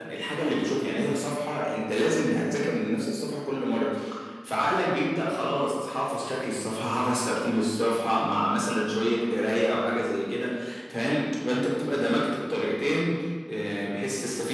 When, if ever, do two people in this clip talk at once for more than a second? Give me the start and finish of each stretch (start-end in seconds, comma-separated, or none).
none